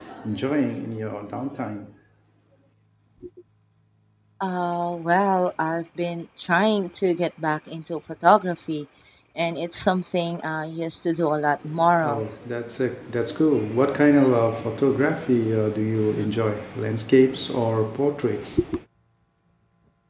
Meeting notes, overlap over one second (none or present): none